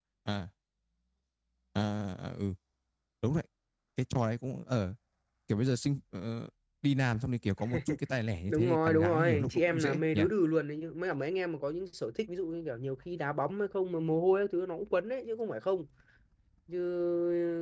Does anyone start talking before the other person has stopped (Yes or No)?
Yes